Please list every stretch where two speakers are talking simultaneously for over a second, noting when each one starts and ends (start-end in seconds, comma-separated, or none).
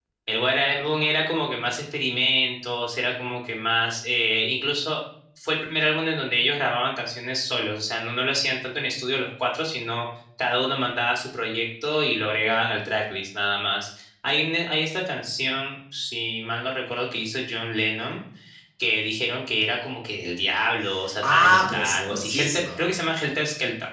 21.2-22.6